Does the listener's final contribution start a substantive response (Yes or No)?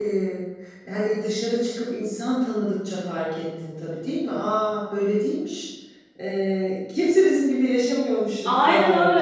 Yes